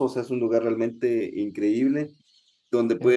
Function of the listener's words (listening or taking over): listening